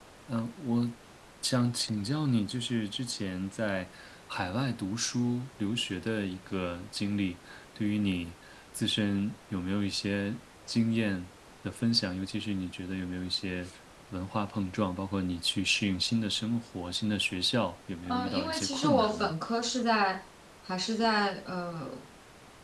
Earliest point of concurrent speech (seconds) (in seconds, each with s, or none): 18.1 s